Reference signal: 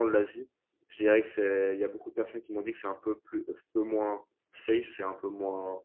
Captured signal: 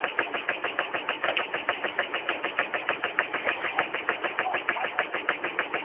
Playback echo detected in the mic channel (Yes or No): No